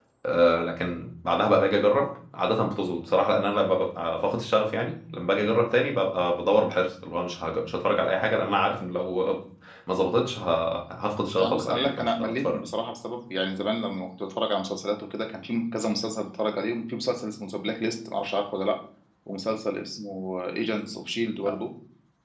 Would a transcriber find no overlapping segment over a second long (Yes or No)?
No